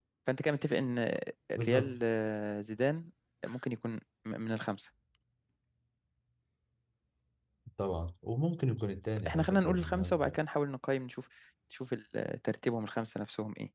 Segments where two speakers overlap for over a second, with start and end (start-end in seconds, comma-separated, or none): 9.2-10.4